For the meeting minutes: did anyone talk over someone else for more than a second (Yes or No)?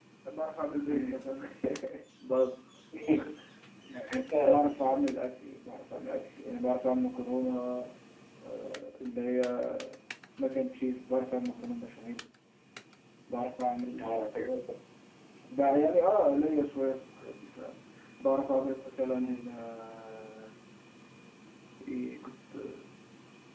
No